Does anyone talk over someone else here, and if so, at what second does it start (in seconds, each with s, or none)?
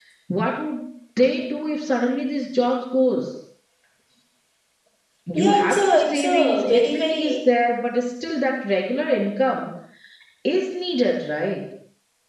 5.3 s